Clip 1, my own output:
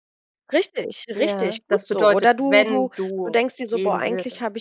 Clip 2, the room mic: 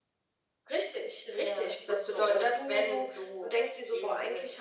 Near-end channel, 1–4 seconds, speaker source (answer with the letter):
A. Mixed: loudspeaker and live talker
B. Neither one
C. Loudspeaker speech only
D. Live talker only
C